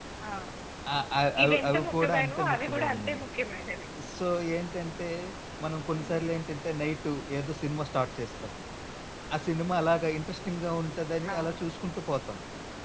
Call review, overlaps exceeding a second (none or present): present